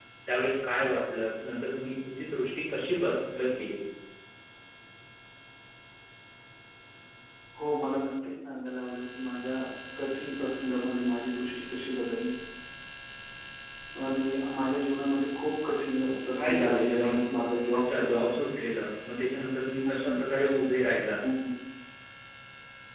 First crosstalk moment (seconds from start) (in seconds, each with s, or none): 16.4 s